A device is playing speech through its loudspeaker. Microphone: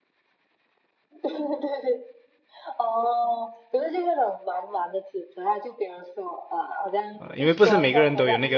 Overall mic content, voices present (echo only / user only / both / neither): both